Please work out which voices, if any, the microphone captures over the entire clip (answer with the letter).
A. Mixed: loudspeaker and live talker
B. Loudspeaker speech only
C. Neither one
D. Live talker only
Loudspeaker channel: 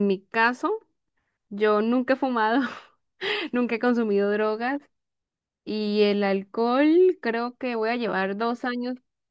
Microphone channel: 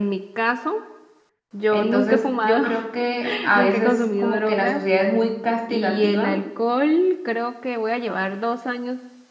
A